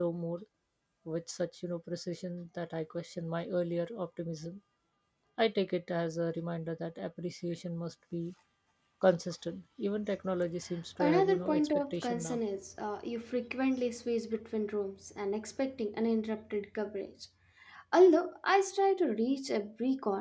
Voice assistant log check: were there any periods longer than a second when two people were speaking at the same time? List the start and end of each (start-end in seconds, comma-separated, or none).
11.0-12.4